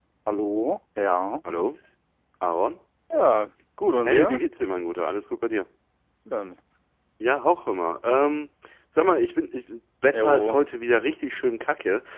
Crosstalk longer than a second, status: none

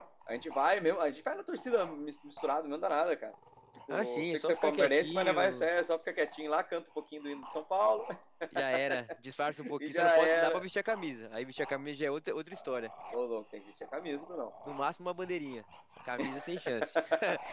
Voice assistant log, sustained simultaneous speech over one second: present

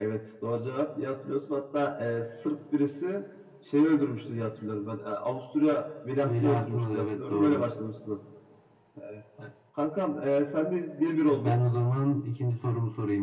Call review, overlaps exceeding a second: present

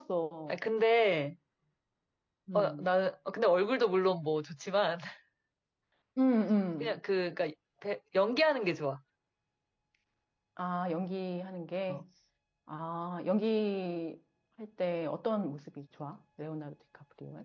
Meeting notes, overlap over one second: none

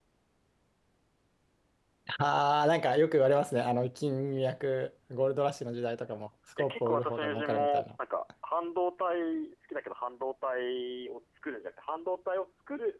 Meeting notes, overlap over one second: present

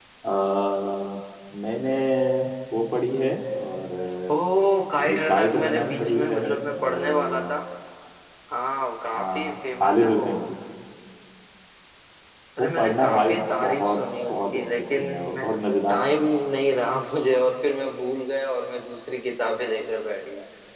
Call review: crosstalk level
present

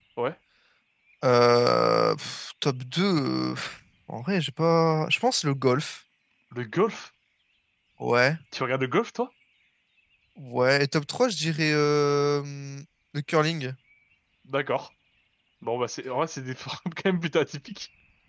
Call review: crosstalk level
none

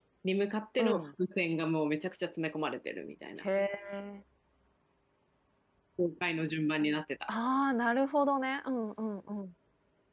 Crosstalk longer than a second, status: none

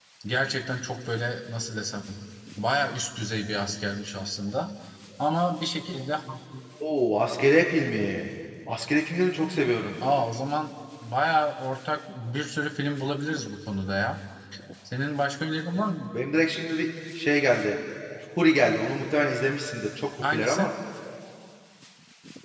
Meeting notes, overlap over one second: none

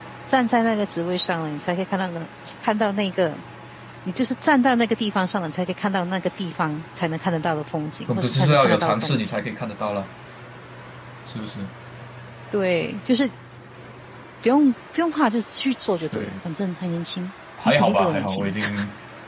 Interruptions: present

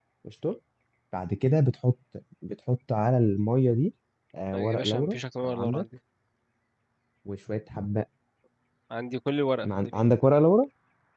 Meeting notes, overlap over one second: present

